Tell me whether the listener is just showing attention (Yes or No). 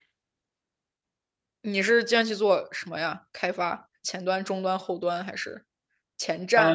No